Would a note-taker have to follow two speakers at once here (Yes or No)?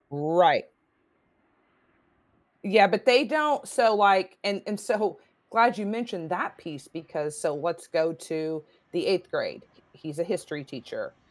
No